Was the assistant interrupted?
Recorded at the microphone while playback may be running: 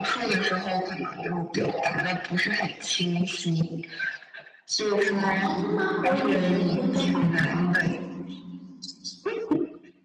Yes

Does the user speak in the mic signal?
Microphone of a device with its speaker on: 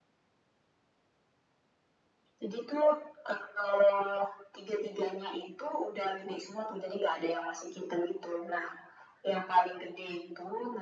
No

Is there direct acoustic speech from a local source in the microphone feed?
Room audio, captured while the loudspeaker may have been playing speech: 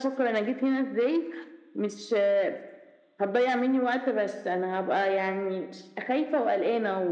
No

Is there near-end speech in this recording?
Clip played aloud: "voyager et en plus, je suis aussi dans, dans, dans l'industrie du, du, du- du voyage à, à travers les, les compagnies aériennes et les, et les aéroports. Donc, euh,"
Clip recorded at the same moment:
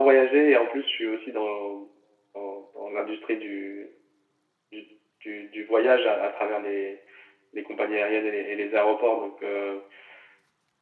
No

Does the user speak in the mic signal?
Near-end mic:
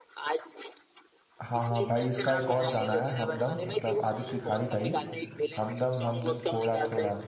Yes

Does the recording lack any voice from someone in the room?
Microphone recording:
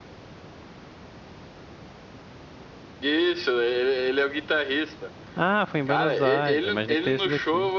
No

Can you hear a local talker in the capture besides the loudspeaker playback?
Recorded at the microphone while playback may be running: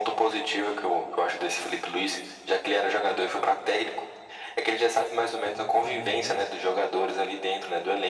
Yes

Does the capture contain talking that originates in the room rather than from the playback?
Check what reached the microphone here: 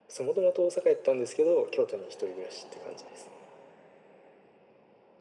No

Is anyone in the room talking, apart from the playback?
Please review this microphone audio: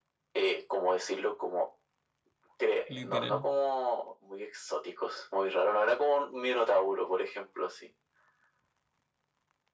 Yes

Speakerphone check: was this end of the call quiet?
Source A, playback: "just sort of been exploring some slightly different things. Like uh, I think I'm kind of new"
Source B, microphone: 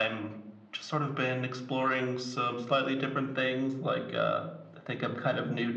Yes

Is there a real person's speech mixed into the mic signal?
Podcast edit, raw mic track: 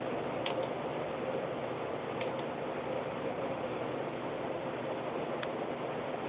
No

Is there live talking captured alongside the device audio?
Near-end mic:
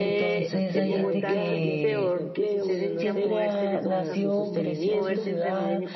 Yes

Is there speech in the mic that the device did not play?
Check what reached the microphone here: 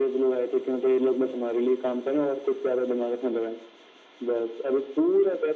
No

